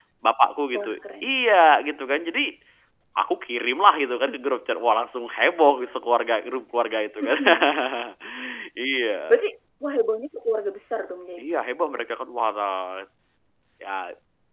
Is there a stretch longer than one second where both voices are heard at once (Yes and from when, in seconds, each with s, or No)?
No